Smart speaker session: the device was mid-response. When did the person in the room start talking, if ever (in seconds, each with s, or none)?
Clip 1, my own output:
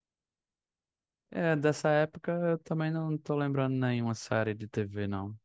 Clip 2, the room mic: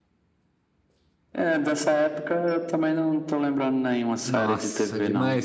4.2 s